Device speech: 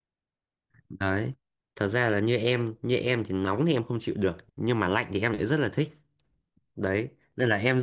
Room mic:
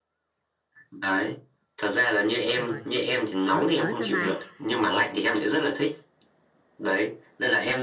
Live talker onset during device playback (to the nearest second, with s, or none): 3 s